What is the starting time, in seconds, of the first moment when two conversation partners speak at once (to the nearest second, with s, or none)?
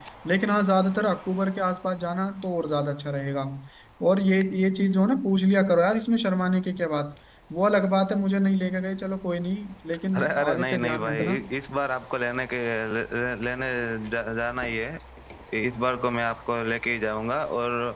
10 s